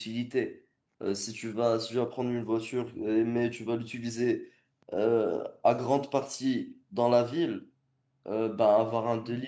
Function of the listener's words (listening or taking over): listening